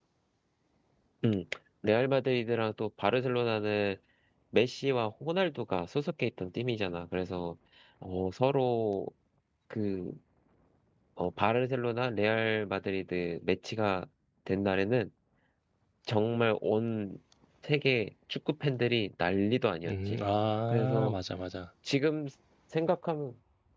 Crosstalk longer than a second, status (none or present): none